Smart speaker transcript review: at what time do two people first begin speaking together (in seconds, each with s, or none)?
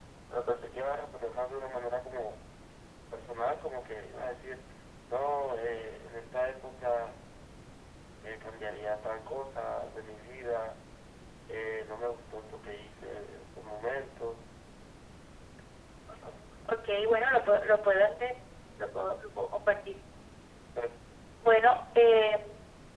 none